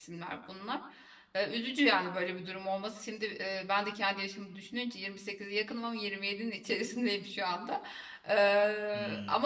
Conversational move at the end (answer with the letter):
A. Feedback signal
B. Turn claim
A